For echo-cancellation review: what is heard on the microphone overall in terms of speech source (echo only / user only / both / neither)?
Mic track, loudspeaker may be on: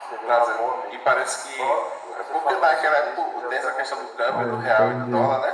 both